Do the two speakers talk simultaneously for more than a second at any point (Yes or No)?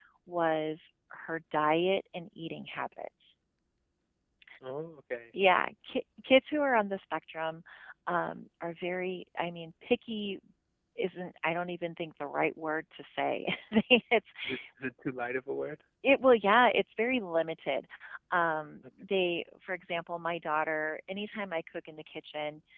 No